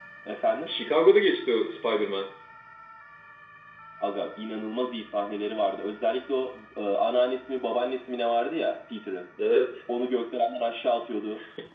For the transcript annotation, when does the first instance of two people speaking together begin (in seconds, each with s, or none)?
none